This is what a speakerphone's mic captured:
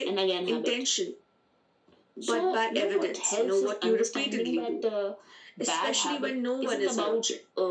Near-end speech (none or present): none